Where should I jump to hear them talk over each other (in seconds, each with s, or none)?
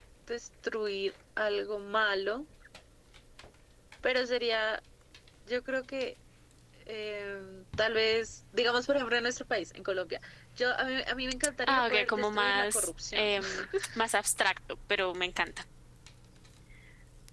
11.6 s